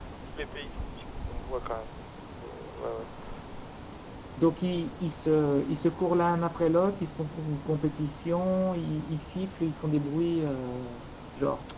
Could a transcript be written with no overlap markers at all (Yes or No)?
Yes